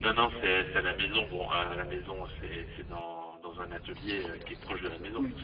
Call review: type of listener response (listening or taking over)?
listening